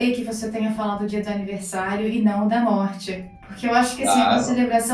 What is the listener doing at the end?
listening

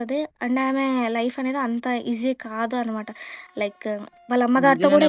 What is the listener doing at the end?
taking over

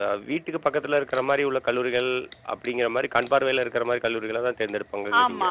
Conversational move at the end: taking over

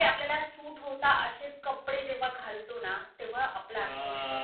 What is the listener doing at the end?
taking over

